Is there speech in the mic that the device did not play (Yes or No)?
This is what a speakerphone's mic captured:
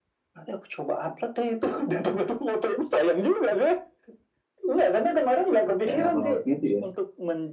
Yes